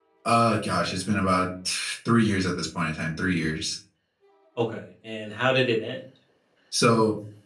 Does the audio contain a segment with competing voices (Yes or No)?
No